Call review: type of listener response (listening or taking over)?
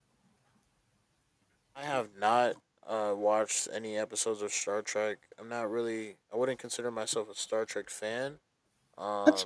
listening